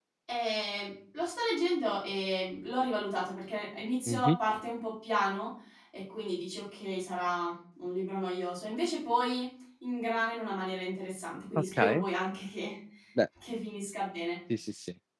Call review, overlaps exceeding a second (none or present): none